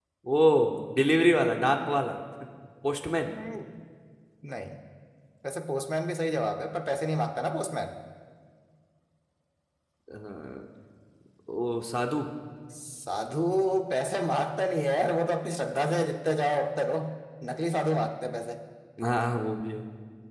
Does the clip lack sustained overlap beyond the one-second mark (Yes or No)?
Yes